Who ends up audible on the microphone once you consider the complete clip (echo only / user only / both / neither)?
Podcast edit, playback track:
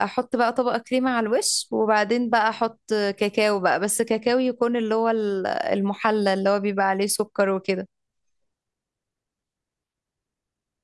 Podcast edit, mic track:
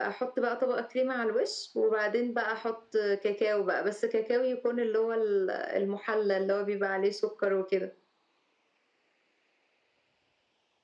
echo only